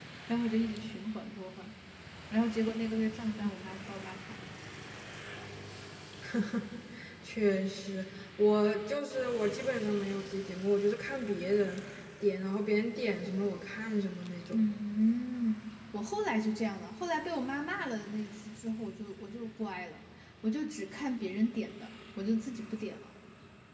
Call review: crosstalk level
none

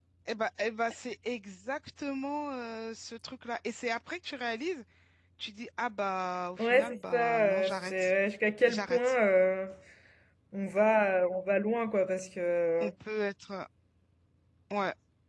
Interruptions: present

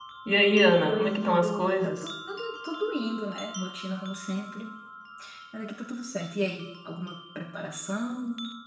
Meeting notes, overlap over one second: present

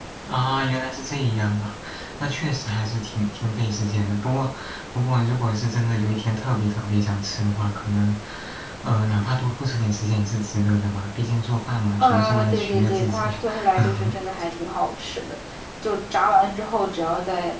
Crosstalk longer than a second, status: present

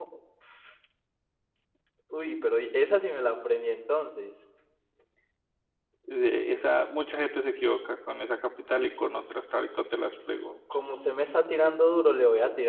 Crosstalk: none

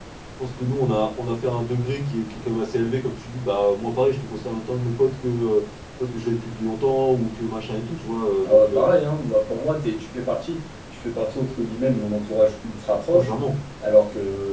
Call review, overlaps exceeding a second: none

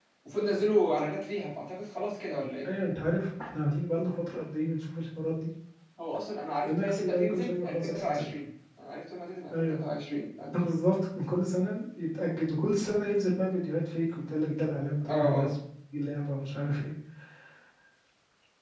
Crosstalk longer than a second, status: present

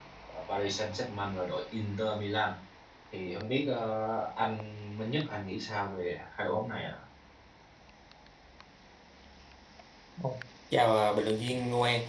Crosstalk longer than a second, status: none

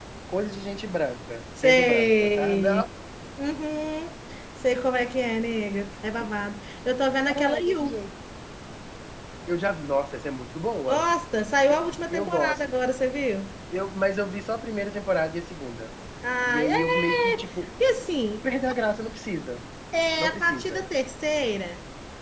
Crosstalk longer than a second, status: present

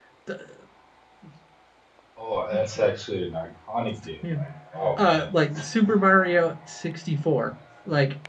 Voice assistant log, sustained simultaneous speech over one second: none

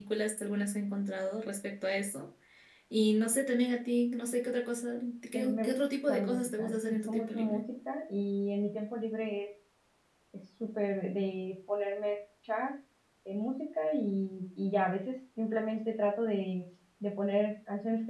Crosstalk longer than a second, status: present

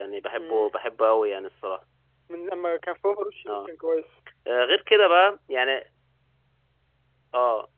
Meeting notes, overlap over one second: none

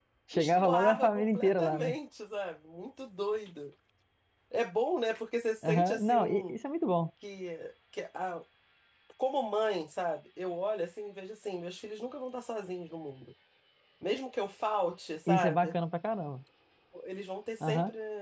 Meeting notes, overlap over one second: present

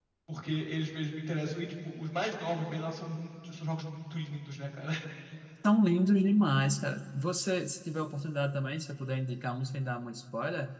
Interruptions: none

